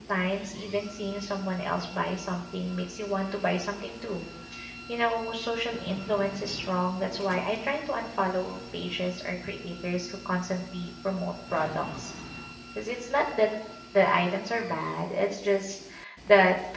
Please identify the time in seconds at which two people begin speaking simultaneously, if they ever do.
none

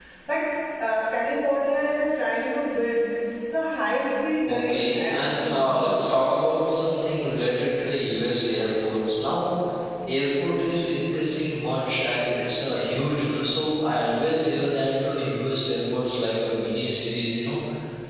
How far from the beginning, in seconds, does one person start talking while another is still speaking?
4 s

